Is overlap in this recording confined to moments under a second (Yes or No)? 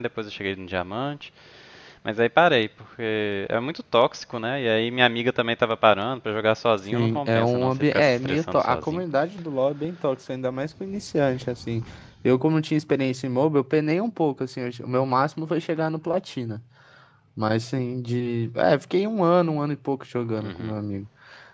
No